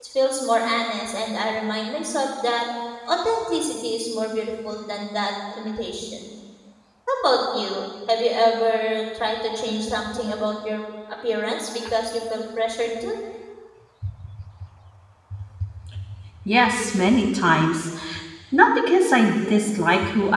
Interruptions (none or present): none